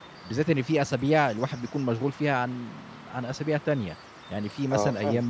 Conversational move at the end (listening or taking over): listening